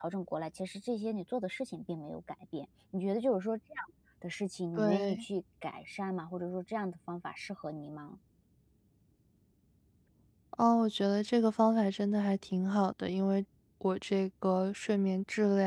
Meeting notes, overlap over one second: none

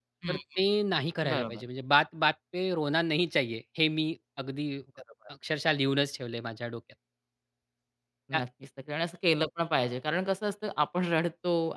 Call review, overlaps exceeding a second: none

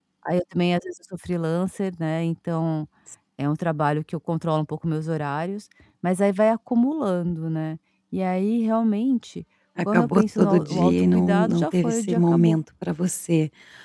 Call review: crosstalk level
present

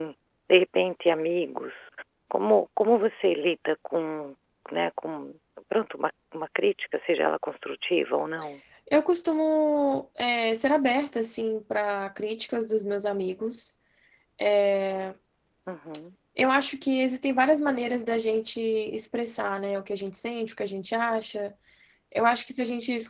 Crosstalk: none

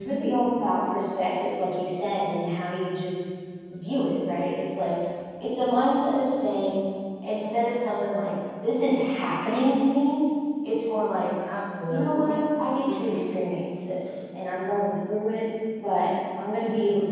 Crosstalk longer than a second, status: none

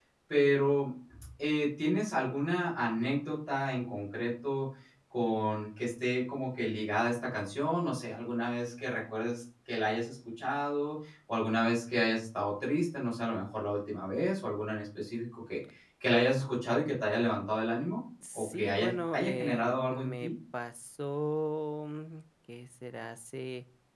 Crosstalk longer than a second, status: present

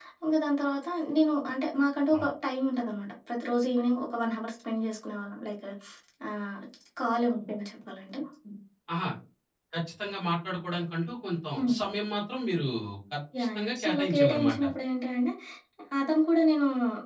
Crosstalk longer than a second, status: present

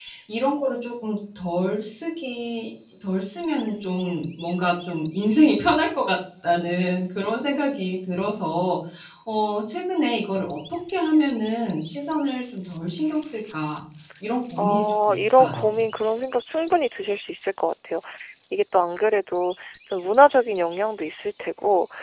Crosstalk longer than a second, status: present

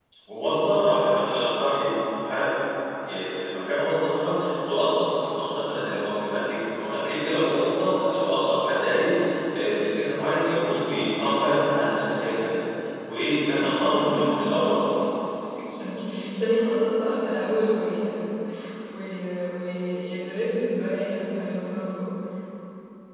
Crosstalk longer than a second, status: present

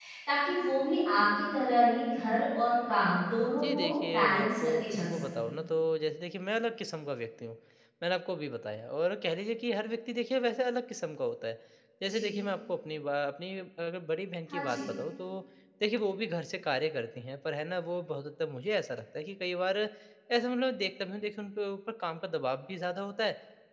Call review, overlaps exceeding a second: present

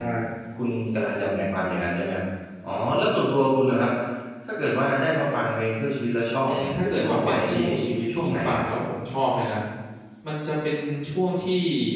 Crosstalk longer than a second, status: present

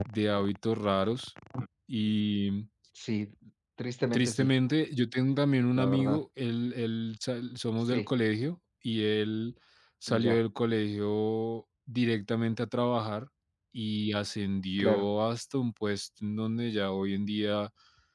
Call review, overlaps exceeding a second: none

